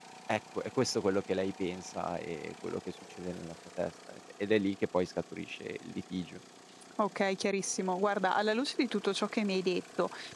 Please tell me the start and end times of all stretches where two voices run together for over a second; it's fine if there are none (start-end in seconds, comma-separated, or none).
none